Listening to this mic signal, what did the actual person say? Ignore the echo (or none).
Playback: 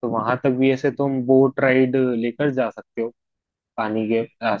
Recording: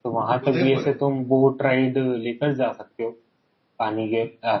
उदयपुर